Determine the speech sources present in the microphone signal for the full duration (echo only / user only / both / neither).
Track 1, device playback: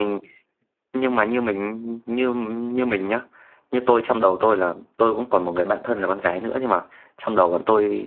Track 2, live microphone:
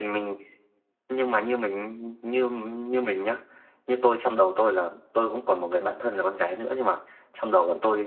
echo only